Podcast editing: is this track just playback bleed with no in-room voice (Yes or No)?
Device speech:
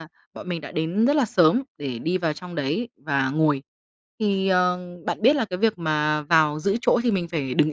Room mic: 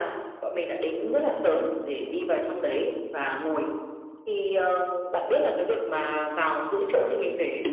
Yes